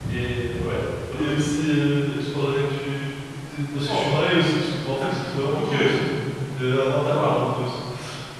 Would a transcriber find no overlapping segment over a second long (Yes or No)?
Yes